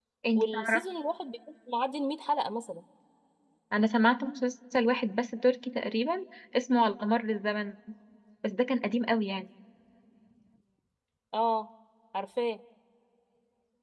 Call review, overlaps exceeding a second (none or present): none